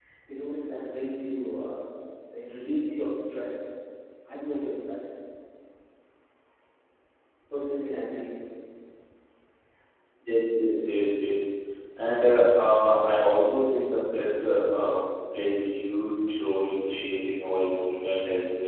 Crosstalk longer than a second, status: none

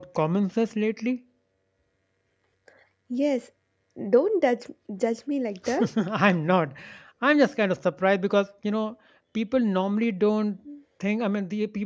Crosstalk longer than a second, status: none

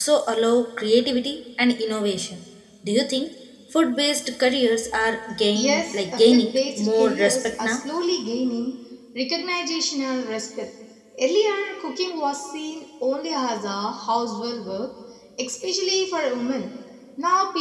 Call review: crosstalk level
present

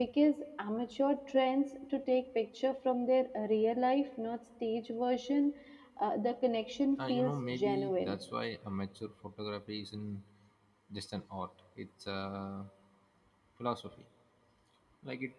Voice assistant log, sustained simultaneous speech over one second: present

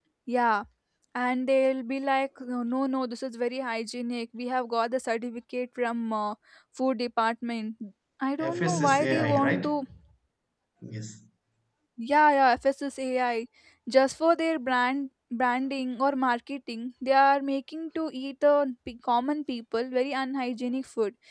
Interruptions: present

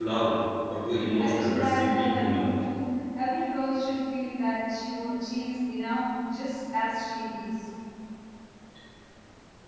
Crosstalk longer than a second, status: present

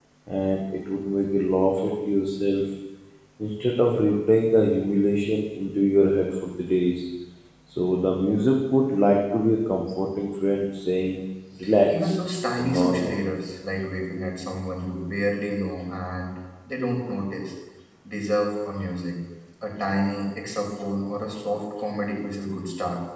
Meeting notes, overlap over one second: present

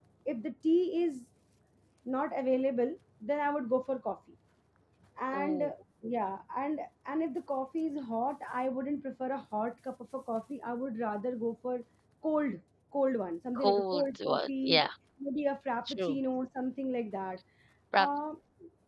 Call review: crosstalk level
present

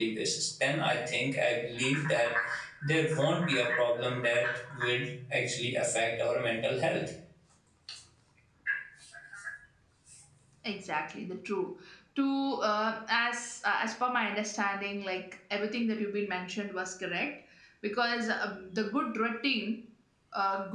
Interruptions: none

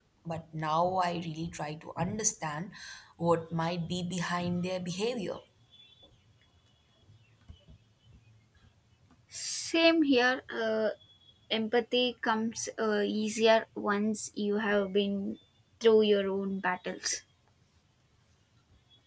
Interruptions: none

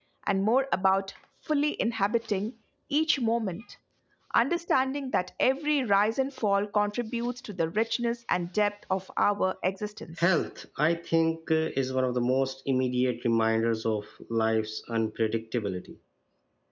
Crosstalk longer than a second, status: none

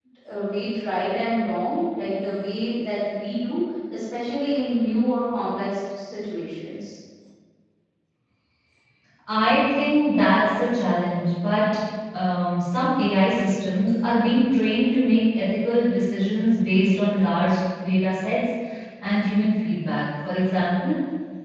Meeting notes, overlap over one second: none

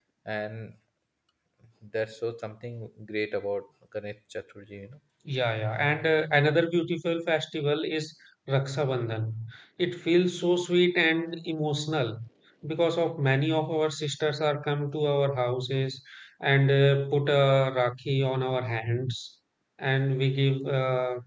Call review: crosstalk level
none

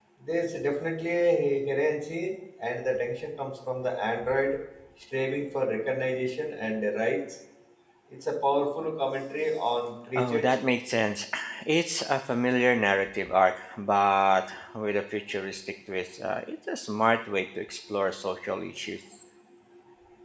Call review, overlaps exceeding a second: none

